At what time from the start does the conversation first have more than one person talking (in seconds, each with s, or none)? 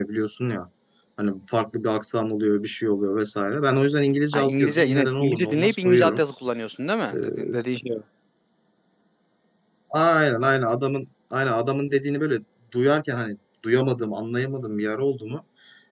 4.3 s